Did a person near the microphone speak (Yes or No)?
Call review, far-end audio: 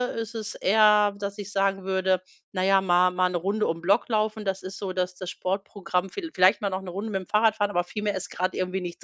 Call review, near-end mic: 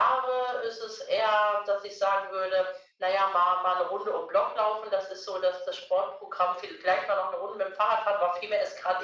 No